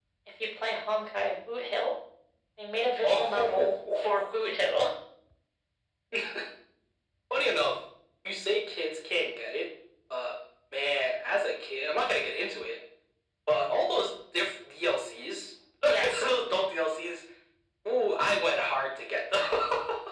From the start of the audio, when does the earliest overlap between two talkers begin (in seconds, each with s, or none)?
3.0 s